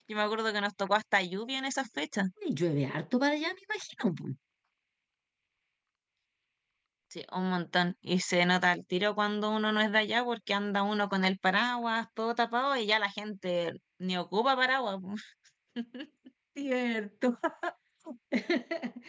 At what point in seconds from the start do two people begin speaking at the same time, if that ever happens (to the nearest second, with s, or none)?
none